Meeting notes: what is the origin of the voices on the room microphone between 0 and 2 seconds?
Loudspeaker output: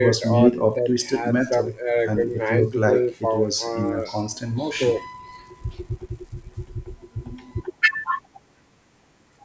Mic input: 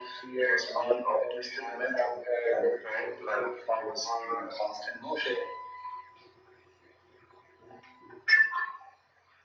echo only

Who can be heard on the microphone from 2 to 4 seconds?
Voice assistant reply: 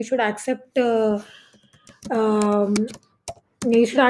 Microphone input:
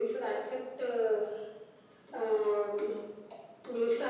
echo only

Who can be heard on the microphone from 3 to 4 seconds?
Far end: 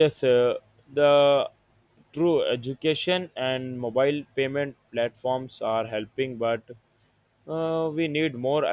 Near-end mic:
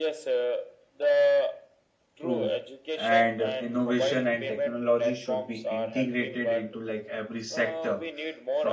both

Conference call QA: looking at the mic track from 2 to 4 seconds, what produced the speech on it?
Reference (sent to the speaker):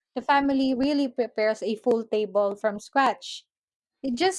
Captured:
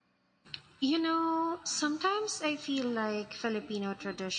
user only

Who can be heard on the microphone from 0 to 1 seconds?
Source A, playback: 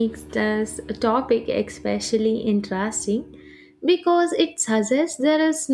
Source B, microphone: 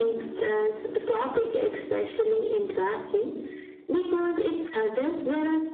echo only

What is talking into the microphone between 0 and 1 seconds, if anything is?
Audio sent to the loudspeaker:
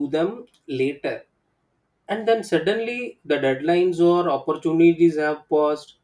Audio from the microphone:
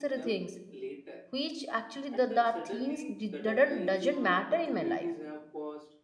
both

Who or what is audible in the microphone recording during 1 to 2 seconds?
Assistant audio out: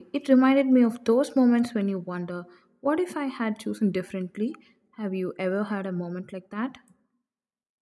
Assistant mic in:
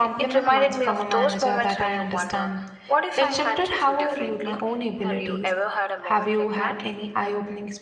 both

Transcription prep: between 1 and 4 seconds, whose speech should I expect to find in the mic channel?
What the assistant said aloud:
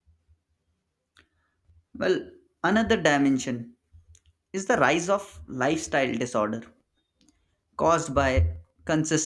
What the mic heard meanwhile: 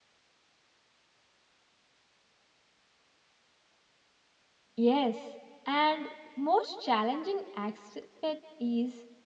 neither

